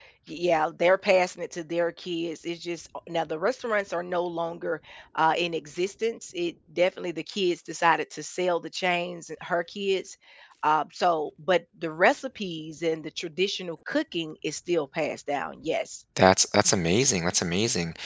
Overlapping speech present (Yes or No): No